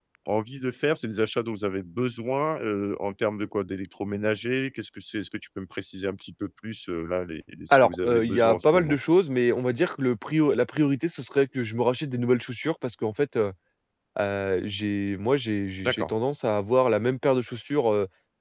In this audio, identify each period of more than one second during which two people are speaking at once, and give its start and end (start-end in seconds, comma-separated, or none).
7.7-9.0